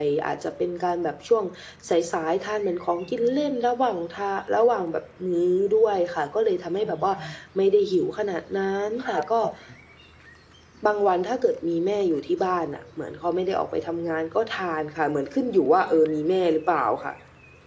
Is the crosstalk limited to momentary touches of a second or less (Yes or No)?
Yes